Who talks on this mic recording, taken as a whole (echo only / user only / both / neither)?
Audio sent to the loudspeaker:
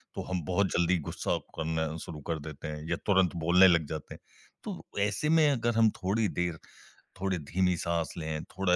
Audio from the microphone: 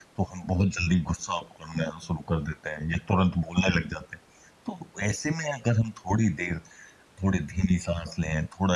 echo only